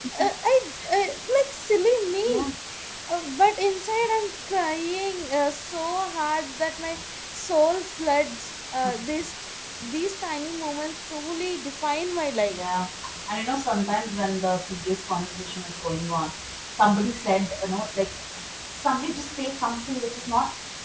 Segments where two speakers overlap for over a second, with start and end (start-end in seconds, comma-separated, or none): none